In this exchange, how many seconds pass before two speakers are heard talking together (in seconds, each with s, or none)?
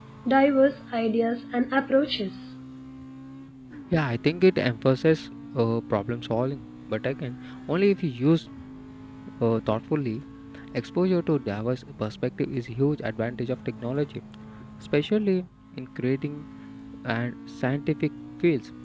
none